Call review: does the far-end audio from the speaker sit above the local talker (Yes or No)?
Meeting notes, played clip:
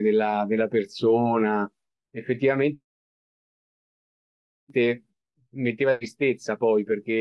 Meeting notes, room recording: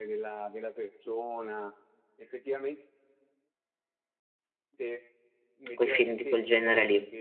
No